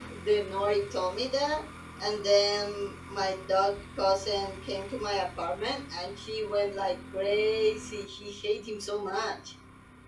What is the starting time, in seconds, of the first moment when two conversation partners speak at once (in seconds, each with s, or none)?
none